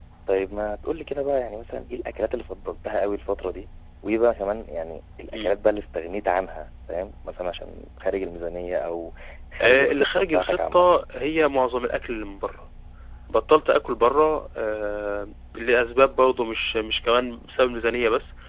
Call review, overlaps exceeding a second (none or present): present